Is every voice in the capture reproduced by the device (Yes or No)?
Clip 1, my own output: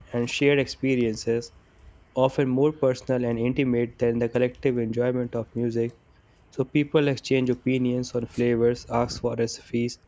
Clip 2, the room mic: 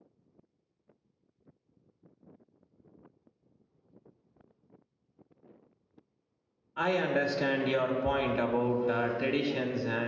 No